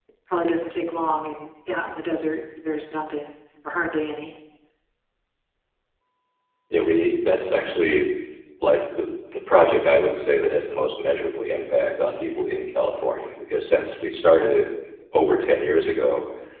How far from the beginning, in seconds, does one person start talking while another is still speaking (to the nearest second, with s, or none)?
none